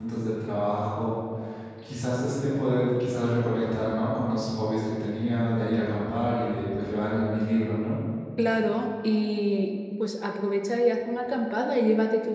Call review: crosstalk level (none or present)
none